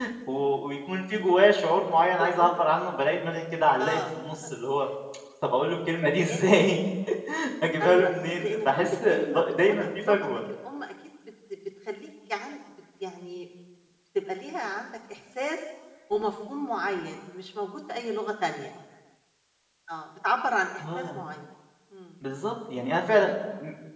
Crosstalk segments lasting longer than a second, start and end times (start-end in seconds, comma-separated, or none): 7.8-10.3